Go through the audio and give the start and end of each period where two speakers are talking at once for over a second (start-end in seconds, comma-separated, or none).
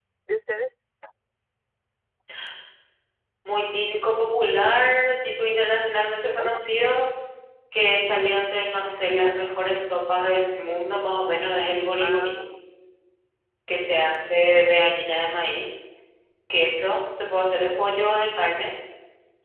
none